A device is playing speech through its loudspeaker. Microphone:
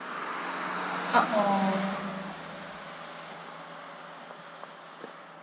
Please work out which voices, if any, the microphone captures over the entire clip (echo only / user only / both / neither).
user only